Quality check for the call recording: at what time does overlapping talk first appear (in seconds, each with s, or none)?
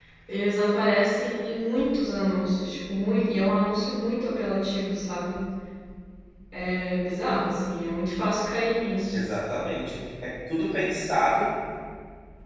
none